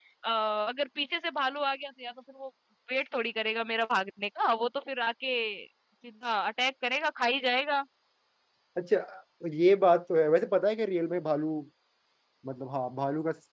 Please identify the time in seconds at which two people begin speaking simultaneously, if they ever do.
none

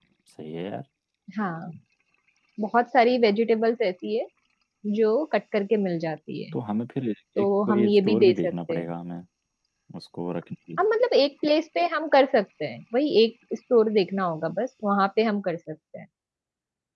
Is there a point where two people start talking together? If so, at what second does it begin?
7.4 s

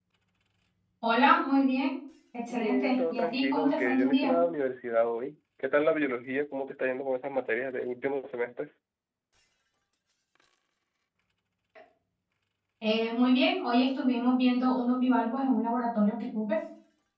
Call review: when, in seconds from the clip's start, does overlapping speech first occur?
2.5 s

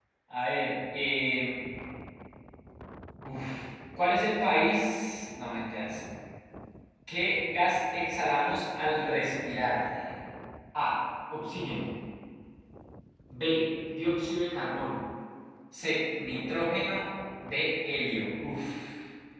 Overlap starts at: none

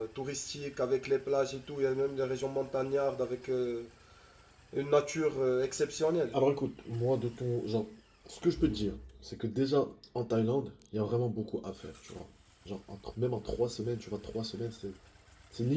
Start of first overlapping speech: none

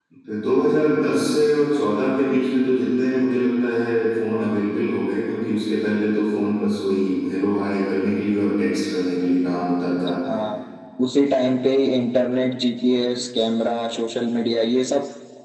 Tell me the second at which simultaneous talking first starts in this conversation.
none

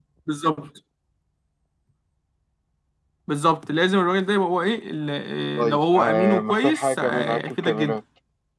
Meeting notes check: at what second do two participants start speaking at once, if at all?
5.6 s

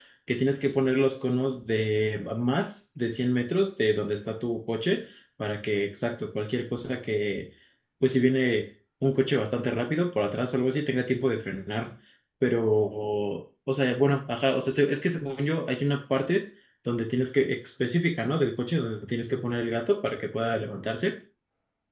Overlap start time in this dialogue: none

